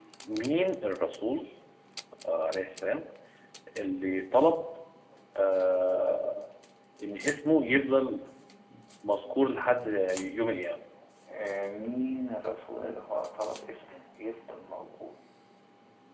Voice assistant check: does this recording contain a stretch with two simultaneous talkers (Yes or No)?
No